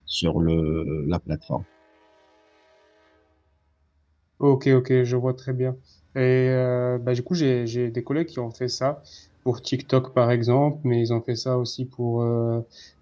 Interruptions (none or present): none